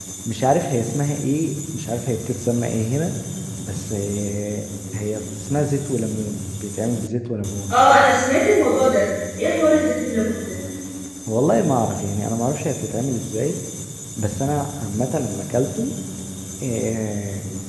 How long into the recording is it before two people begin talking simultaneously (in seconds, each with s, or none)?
none